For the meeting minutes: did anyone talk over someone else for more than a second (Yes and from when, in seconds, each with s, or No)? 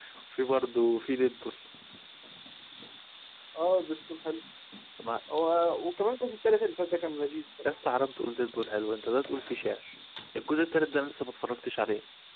No